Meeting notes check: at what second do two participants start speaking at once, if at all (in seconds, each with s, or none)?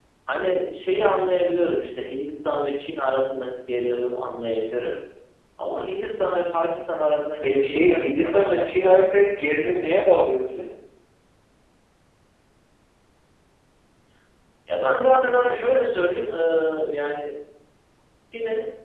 7.4 s